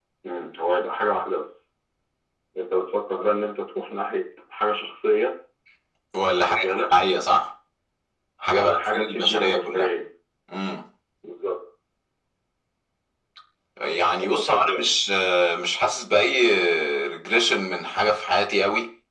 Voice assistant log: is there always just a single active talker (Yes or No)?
No